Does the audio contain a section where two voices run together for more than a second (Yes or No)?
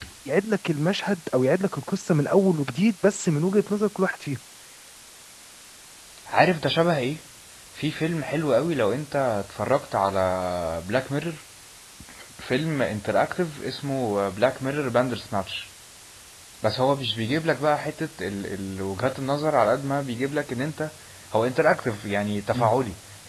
No